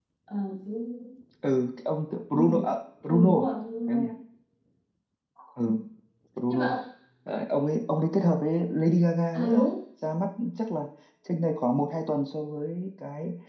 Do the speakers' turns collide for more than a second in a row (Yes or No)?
No